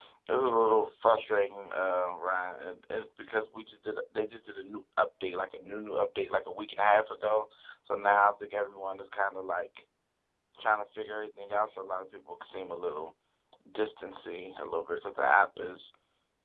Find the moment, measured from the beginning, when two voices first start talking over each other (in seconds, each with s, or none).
none